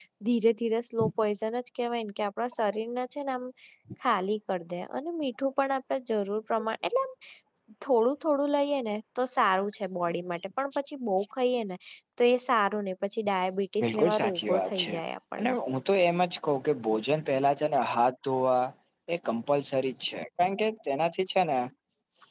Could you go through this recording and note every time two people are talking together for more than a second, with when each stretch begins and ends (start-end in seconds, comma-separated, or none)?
13.8-15.0